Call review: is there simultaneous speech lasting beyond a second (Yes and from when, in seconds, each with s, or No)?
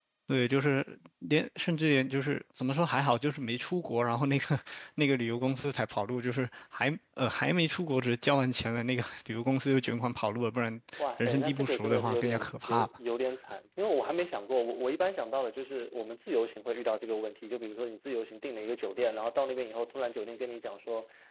Yes, from 11.0 s